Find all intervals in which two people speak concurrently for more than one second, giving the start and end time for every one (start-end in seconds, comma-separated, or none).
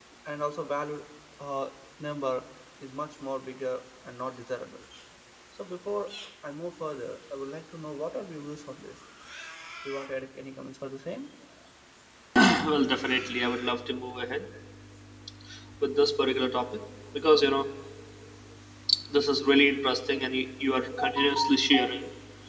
none